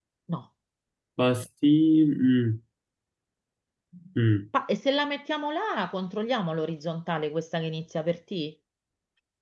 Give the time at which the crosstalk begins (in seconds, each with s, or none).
none